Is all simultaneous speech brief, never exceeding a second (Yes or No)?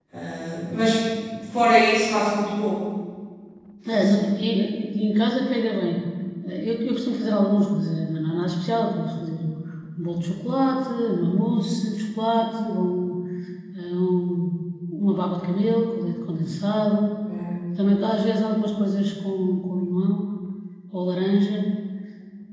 Yes